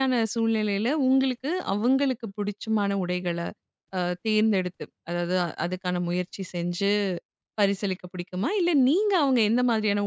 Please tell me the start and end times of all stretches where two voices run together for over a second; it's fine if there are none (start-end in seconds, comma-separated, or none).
none